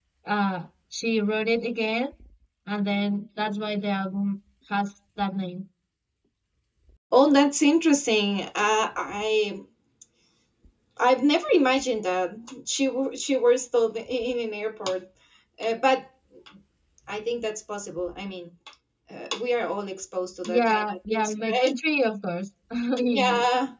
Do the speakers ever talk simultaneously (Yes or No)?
Yes